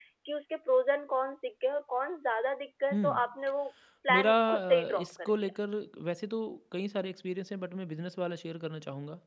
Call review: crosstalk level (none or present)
present